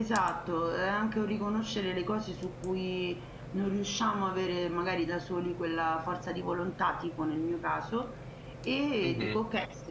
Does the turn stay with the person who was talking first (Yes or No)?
Yes